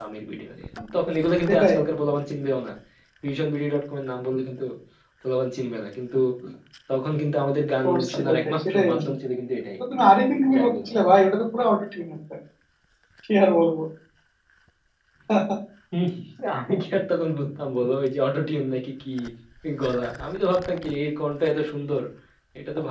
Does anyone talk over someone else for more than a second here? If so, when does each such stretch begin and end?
7.8-9.1

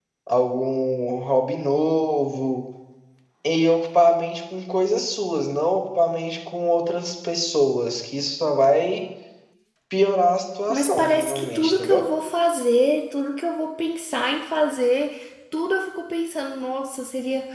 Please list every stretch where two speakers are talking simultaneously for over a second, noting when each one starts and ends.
10.7-12.0

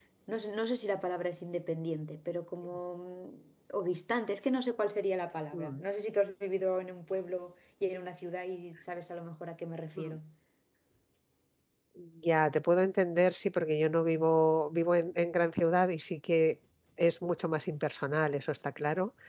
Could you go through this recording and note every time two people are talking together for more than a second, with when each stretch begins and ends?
none

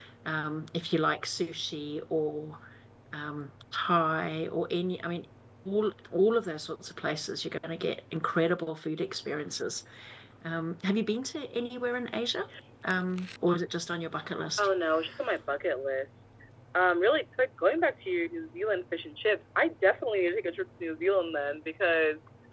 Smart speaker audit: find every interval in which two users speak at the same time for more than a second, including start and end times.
none

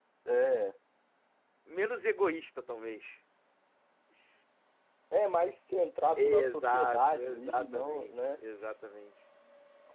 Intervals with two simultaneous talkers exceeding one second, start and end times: 6.2-8.4

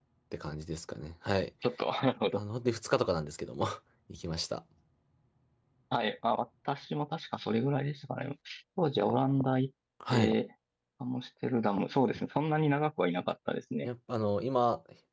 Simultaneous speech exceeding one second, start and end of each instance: none

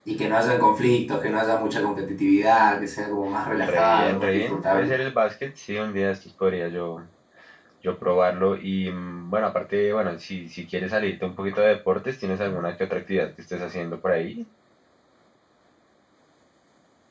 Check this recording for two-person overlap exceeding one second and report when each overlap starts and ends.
3.5-4.9

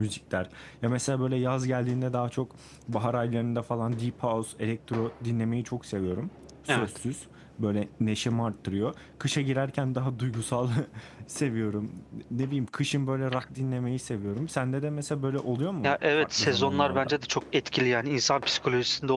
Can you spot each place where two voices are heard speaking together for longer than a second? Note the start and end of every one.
15.8-17.2

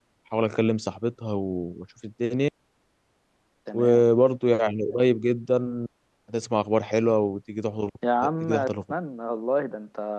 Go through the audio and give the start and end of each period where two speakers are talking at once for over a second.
none

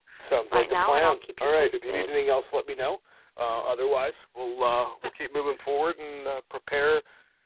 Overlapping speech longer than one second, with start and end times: 0.5-2.1

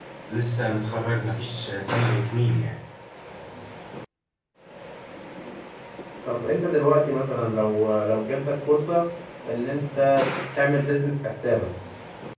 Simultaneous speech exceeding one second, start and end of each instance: none

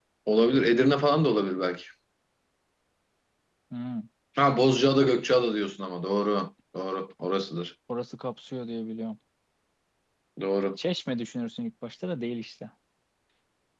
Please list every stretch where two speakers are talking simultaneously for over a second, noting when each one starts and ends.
none

